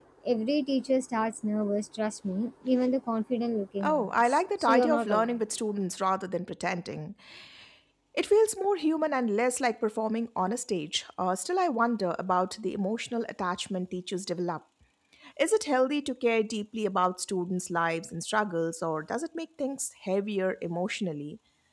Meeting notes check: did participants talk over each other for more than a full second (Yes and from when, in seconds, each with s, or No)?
Yes, from 3.8 s